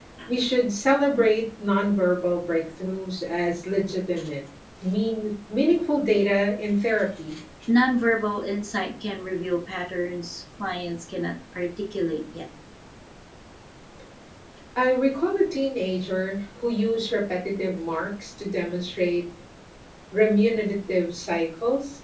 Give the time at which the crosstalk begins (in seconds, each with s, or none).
none